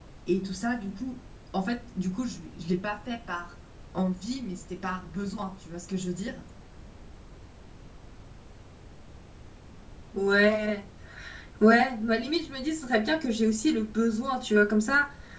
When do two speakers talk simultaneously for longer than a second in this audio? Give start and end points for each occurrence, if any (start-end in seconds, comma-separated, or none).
none